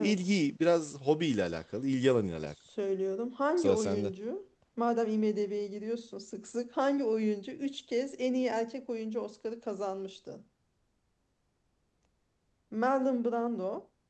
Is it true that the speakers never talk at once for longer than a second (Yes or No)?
Yes